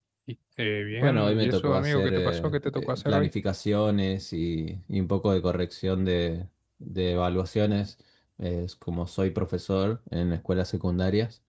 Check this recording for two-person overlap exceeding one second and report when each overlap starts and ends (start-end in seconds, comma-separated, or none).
0.9-3.3